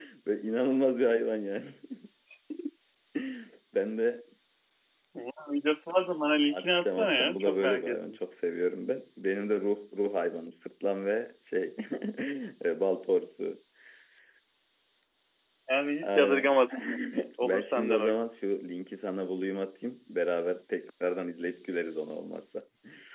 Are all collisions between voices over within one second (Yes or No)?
No